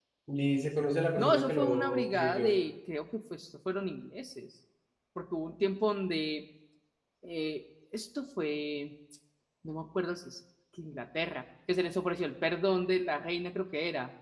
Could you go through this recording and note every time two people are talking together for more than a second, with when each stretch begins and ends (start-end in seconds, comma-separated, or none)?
1.2-2.6